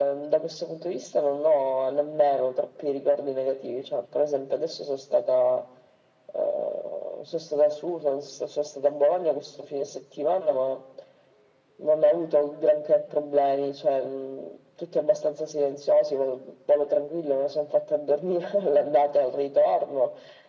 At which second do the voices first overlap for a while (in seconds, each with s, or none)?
none